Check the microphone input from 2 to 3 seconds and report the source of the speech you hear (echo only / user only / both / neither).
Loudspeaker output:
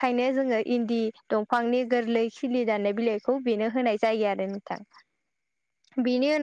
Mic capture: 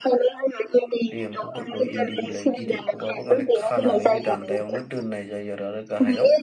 both